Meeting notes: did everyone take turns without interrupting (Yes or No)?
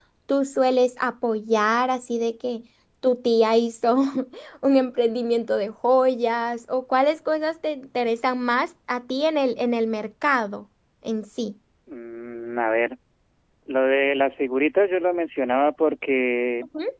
Yes